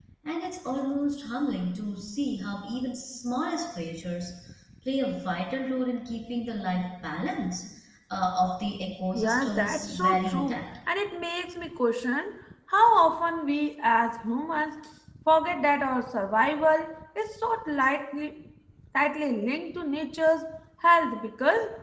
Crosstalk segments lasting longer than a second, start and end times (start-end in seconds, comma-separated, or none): 9.1-10.6